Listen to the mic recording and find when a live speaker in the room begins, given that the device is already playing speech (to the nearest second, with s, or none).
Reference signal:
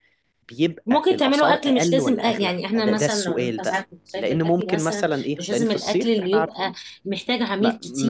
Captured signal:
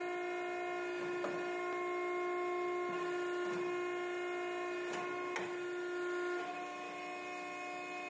none